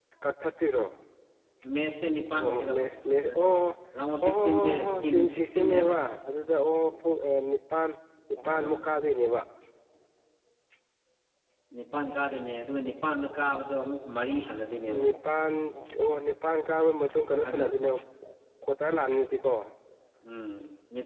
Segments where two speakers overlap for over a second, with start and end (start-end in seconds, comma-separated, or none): 4.2-5.9